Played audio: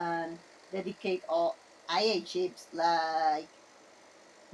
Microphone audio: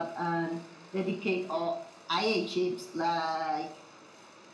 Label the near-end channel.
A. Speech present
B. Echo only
B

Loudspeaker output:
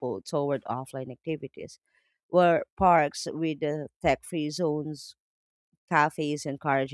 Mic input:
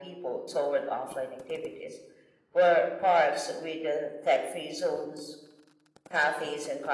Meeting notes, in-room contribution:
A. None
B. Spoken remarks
A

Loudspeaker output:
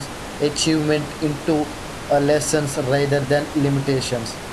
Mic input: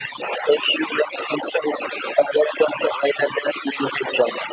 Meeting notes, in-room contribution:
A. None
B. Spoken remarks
A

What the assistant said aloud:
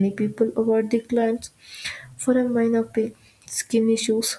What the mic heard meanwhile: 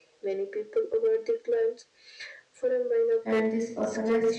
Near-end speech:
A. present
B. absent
A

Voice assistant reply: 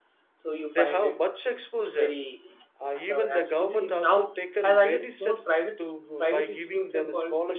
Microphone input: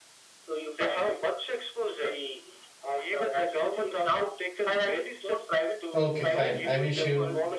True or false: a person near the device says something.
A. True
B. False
A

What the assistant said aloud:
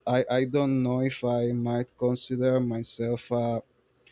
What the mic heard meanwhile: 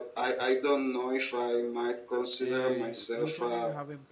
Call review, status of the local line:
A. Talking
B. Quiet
A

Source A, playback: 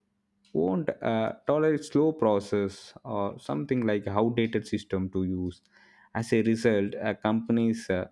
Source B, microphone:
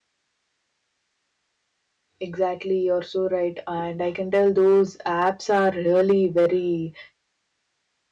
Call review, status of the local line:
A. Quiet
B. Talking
B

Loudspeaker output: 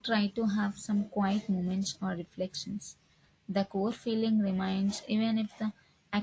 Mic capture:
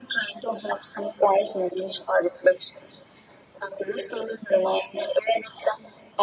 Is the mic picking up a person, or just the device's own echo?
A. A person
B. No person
B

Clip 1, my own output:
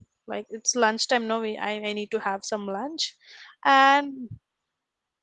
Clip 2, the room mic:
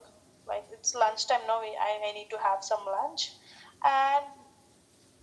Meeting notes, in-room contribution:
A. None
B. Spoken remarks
A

